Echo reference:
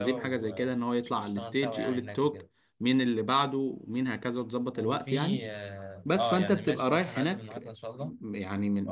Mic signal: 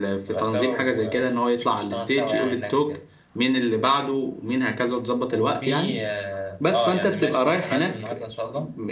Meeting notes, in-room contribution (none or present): none